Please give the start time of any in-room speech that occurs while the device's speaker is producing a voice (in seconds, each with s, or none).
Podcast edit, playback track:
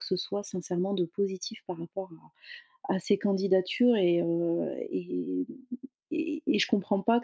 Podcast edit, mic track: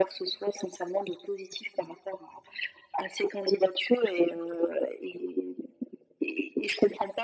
none